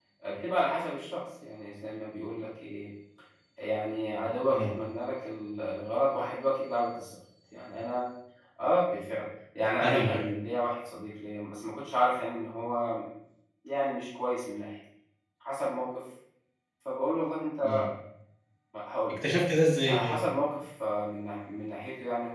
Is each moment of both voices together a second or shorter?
Yes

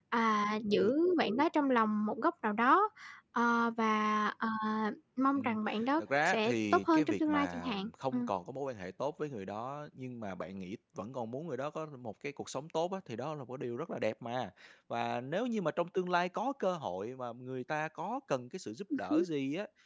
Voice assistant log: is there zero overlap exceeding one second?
No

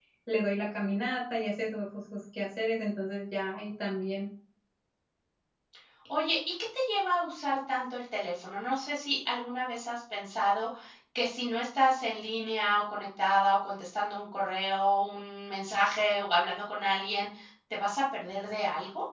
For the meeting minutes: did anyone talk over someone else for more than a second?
No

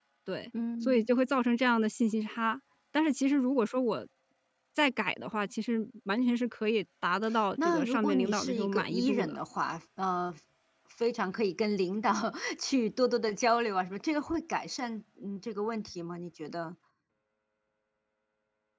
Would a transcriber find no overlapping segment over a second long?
No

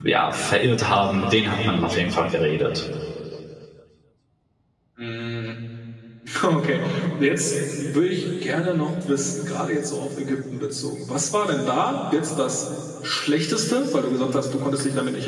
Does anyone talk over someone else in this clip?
No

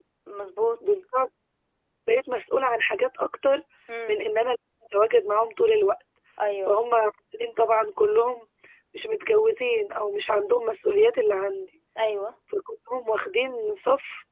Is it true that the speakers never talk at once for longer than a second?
Yes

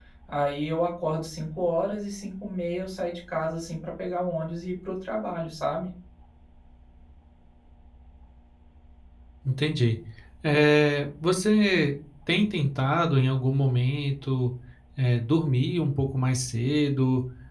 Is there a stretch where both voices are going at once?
No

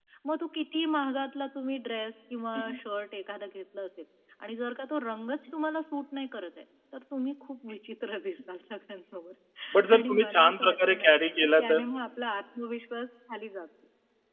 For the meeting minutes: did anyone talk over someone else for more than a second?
Yes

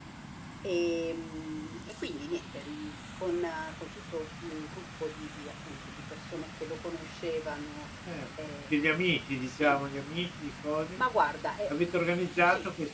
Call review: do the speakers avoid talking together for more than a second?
Yes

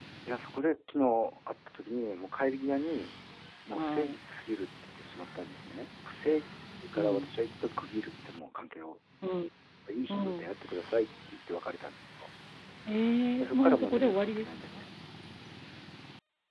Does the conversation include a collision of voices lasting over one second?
Yes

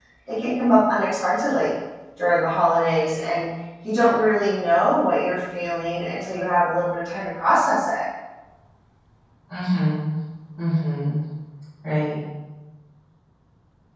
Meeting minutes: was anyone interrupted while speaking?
No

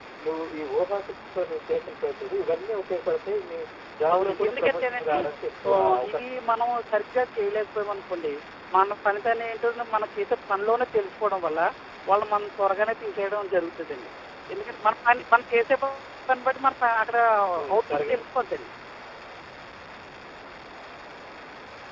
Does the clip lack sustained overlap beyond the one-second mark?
No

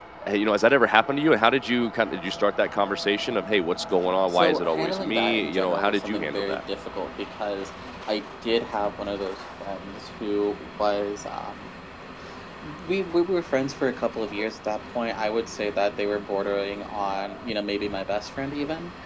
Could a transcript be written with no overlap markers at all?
No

